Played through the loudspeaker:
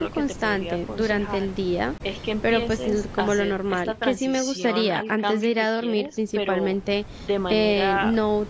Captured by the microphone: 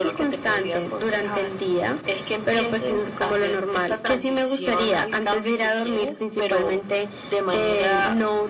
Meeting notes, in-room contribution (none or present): none